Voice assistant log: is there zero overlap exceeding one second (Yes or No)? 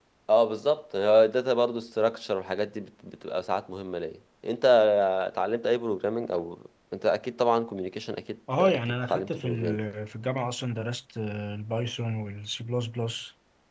No